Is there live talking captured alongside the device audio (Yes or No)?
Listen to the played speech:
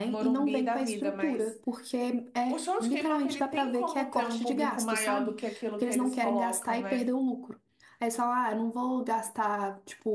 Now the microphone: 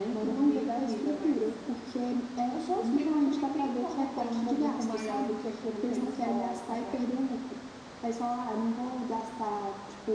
No